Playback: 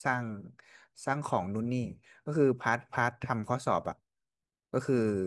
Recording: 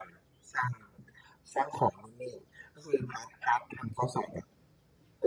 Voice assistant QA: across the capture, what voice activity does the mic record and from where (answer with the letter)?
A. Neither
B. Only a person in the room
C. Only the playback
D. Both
C